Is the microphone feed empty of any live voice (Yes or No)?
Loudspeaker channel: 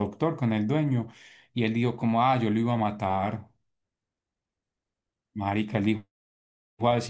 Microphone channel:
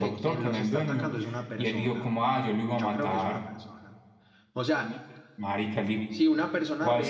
No